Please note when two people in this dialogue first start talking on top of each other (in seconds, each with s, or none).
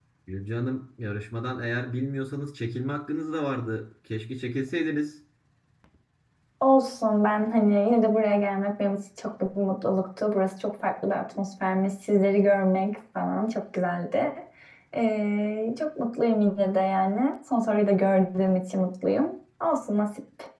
none